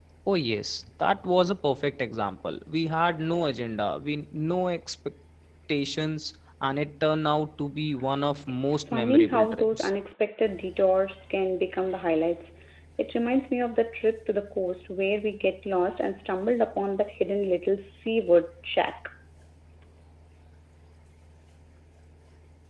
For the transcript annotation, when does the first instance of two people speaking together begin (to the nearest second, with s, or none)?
9 s